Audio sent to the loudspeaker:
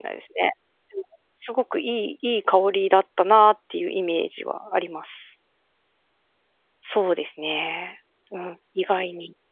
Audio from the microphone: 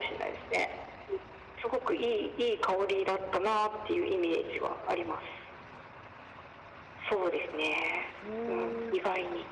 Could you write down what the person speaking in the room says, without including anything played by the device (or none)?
うん